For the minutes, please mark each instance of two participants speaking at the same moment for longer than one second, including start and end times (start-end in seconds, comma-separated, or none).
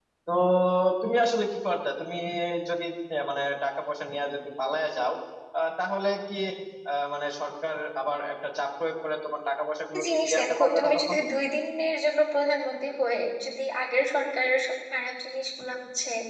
9.9-11.2